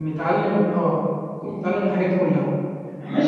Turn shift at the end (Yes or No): Yes